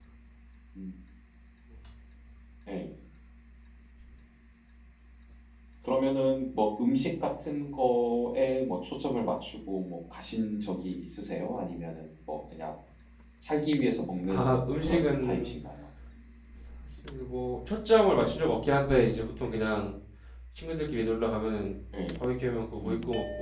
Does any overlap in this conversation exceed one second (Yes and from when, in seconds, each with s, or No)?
Yes, from 14.2 s